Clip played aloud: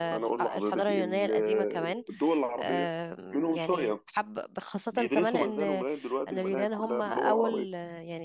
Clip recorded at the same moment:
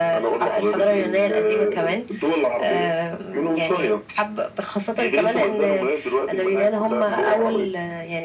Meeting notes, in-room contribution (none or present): none